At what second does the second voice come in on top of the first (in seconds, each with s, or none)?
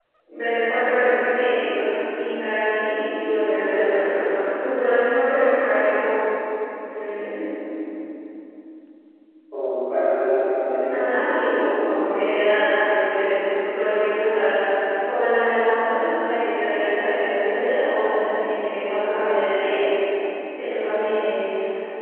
10.8 s